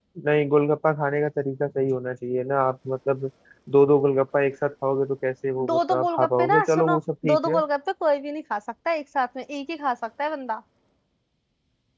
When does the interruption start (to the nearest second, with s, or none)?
6 s